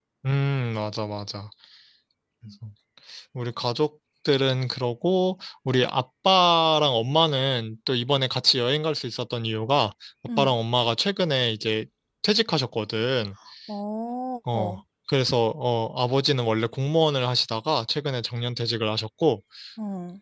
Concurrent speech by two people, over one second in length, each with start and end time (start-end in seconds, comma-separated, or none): none